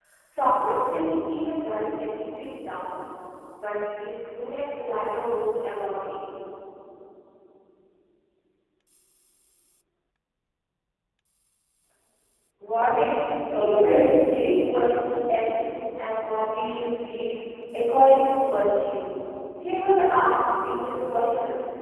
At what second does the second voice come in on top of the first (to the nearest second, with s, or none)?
13 s